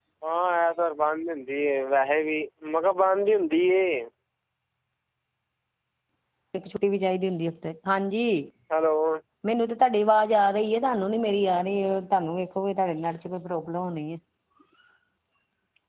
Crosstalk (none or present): none